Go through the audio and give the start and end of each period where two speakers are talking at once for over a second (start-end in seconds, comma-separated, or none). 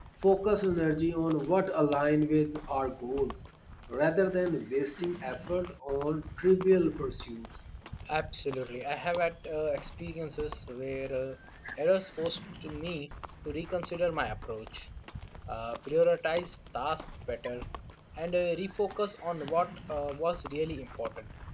none